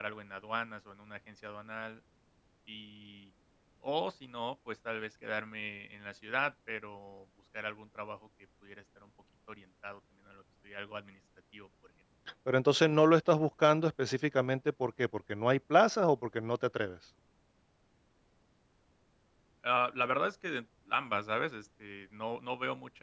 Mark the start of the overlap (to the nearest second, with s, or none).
none